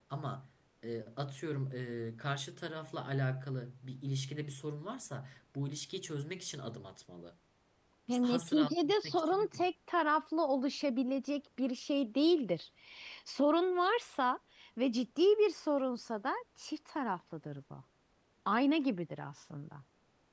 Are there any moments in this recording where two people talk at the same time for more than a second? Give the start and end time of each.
8.2-9.6

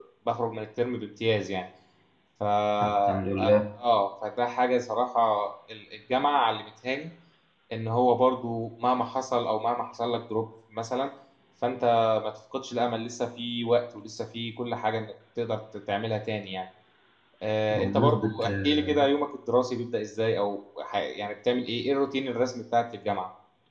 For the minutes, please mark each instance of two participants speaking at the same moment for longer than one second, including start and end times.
17.8-19.0

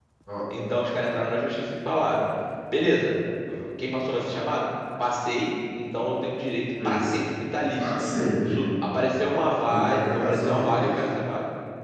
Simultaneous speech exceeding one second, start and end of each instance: 9.7-11.0

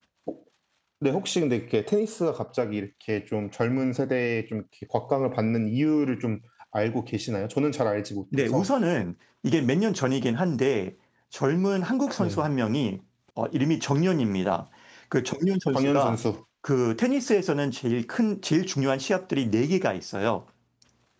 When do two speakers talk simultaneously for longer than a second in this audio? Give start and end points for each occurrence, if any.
none

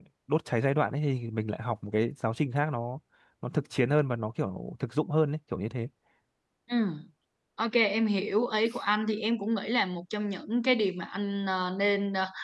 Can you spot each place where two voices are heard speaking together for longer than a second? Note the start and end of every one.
none

